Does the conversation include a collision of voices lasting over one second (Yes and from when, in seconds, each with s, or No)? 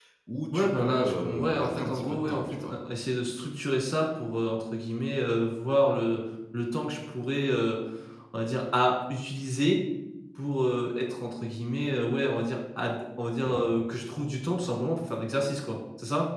Yes, from 0.5 s